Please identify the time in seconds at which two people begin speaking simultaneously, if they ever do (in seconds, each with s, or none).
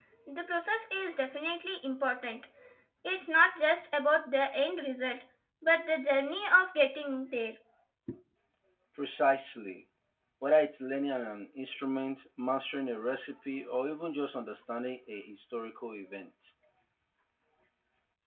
none